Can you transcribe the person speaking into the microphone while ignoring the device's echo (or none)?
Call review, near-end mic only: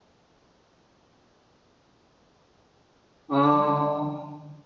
啊，